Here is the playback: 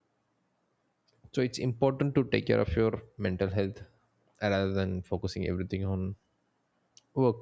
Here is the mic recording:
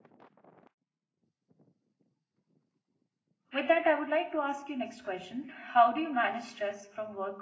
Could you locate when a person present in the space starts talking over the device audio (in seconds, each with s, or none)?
3.5 s